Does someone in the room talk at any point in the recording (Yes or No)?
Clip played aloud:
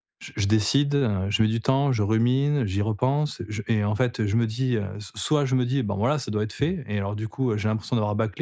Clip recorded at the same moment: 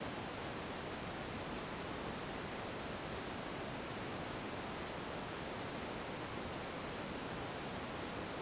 No